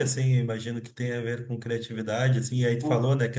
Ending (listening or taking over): listening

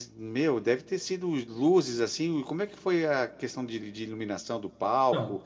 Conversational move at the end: listening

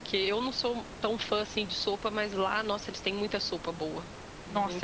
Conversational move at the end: taking over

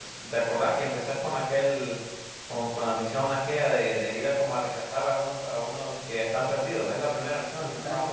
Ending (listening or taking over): taking over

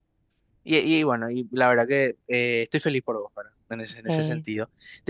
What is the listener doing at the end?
listening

